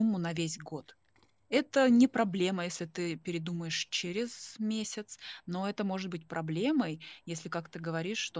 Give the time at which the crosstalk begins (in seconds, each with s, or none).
none